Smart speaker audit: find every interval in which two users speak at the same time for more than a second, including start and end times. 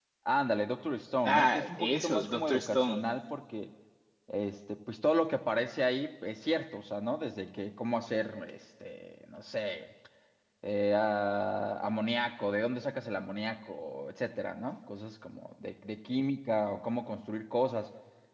1.2-3.0

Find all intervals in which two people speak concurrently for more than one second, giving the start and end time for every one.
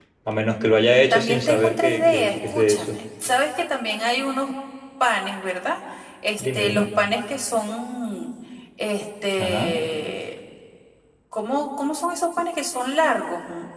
1.1-3.0

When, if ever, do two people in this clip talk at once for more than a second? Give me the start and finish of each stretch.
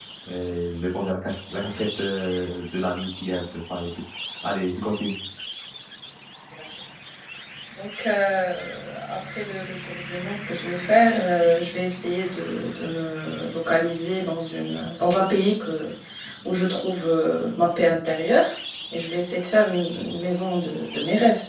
none

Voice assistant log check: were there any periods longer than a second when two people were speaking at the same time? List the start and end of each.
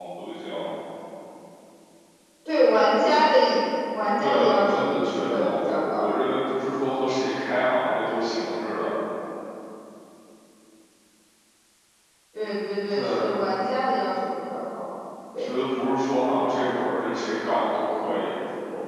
4.2-6.1

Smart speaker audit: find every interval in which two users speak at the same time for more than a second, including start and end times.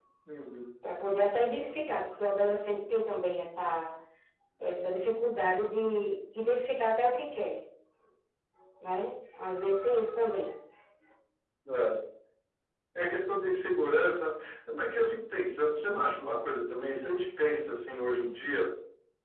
none

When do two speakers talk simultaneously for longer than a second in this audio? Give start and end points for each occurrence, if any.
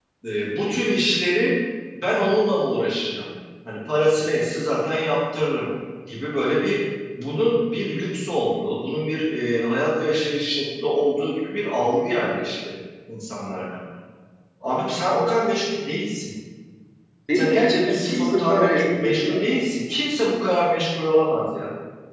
17.3-19.5

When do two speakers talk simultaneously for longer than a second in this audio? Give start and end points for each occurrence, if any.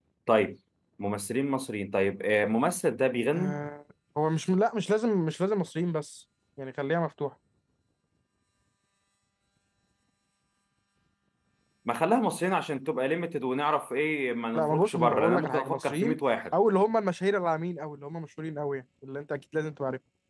14.6-16.2

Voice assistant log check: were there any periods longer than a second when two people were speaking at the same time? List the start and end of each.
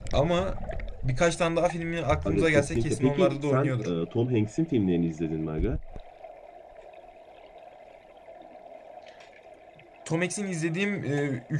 2.2-3.9

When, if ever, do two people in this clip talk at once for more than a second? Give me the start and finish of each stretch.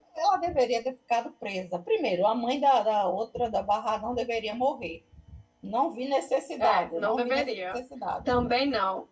6.6-7.8

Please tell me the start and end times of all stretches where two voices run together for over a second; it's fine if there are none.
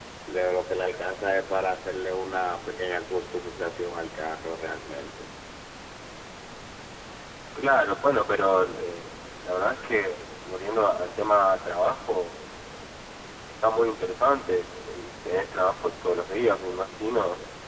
none

